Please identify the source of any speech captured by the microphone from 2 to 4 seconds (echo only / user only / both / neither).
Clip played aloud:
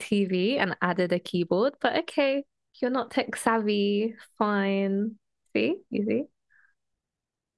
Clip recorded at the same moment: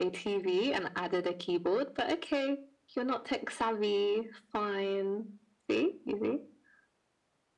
echo only